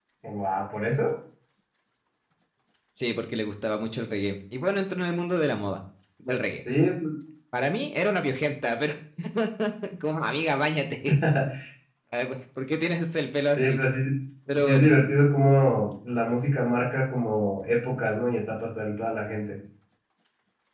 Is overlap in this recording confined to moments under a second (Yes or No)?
Yes